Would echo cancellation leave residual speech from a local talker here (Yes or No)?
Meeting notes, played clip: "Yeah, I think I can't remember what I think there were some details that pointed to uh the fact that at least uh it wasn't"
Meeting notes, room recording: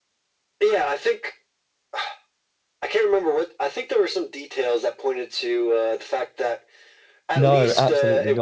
Yes